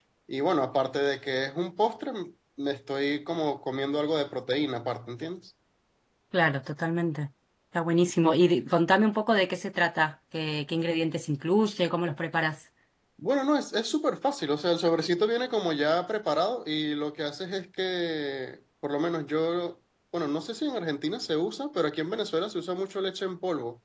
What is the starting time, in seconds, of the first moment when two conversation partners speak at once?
none

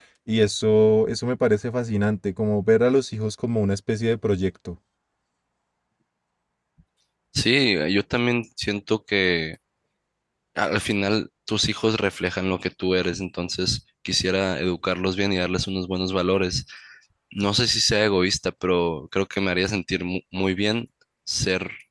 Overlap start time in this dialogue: none

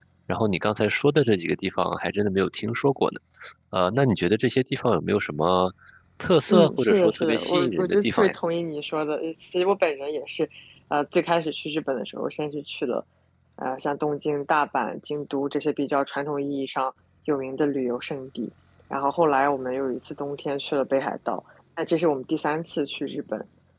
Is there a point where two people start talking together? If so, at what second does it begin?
6 s

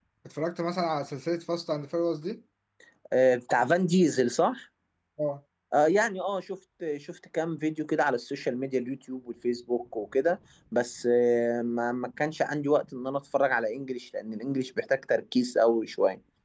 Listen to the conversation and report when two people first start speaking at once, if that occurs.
none

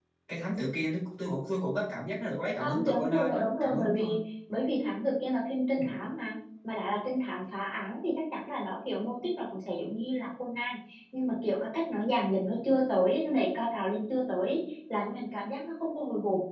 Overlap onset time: 3 s

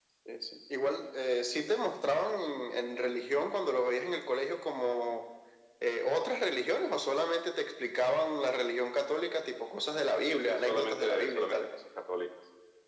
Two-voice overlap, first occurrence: 10 s

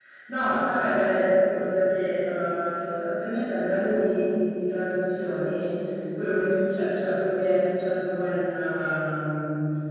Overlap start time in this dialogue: none

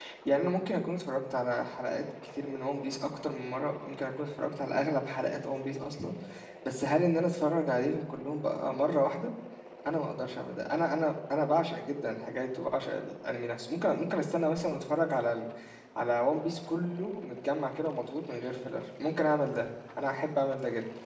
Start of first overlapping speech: none

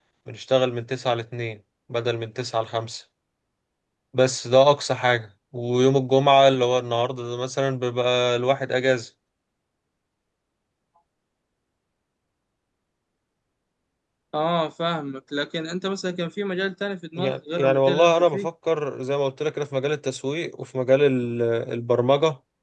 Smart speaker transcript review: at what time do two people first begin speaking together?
17 s

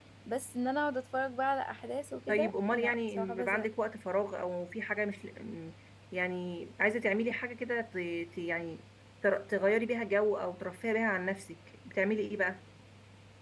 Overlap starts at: 2 s

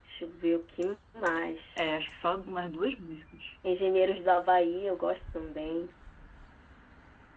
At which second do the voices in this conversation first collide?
none

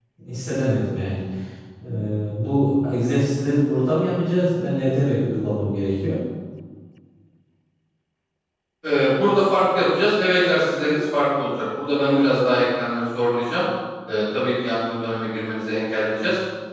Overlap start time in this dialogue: none

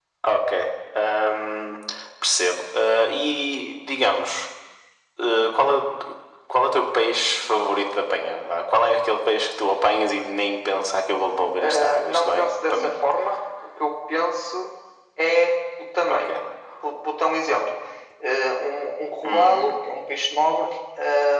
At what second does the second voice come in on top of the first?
12 s

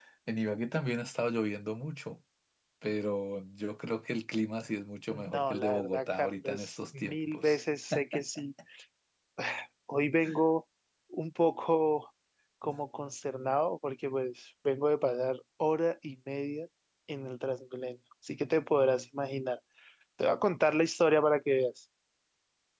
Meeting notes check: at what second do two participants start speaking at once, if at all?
5 s

